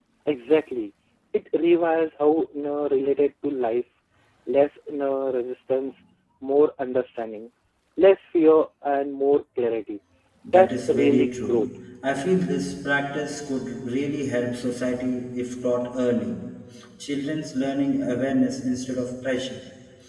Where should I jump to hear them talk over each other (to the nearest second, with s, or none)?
10 s